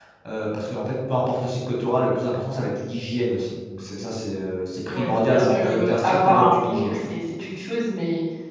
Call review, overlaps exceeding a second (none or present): present